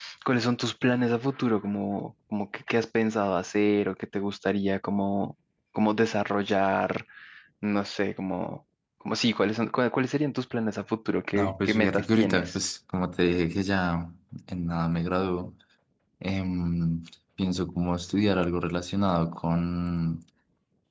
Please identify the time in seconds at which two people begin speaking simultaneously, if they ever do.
11.3 s

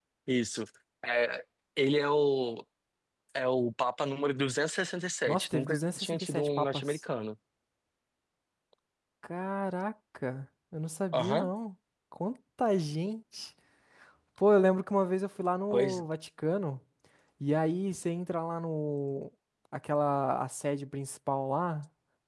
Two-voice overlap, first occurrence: 5.3 s

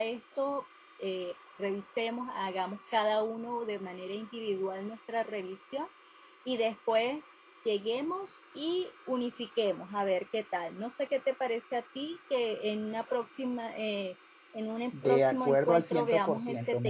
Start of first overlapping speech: 14.9 s

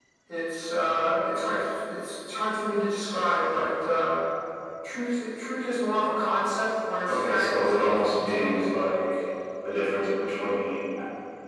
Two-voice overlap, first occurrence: 7.1 s

